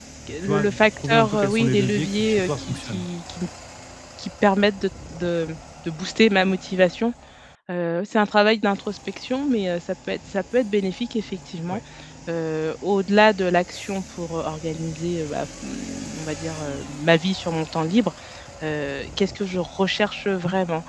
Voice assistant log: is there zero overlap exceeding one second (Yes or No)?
No